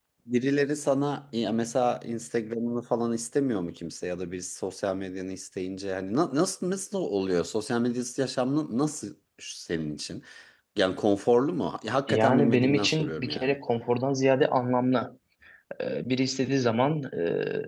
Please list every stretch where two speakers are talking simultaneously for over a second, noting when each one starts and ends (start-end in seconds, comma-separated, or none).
12.1-13.5